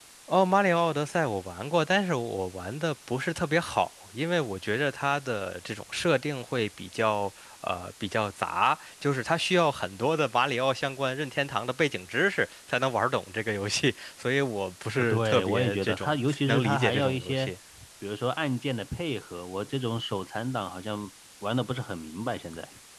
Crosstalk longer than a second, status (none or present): present